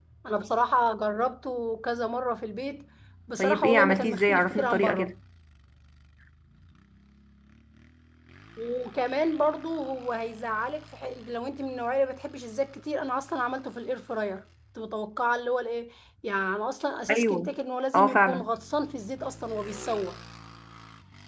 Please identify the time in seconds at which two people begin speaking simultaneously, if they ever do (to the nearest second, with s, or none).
3 s